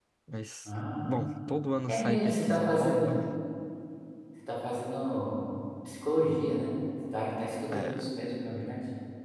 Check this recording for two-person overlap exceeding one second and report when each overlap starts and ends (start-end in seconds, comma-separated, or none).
1.9-3.1